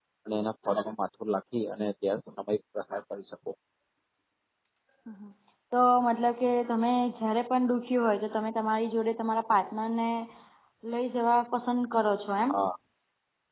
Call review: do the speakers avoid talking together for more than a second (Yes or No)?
Yes